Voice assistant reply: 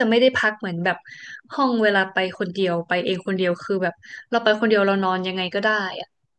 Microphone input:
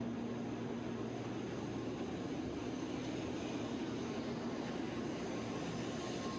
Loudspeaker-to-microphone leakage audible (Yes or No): No